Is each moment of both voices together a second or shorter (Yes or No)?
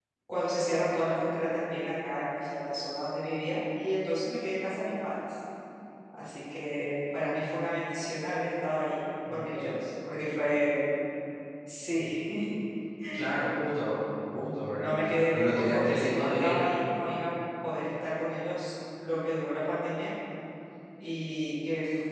No